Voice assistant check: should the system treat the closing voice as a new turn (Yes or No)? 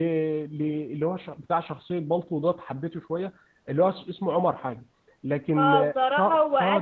Yes